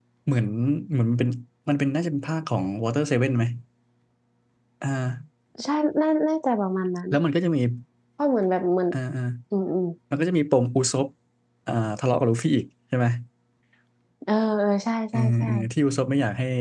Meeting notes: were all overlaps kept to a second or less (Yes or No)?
Yes